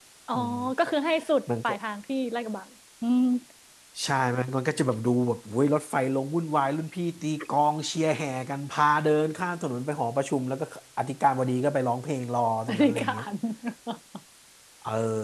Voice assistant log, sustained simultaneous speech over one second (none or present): none